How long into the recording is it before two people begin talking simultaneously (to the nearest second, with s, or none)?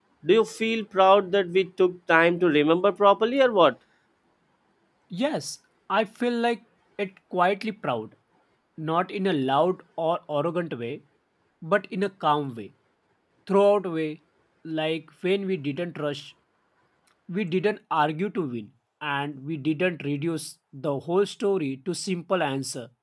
none